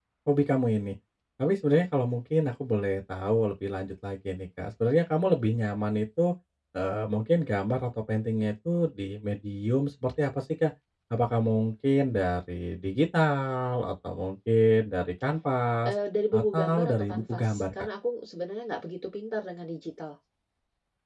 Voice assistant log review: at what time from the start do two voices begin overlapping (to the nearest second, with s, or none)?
16 s